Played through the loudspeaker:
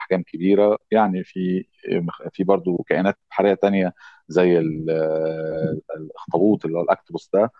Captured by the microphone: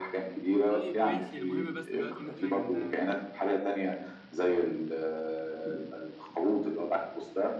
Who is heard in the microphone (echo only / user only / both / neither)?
both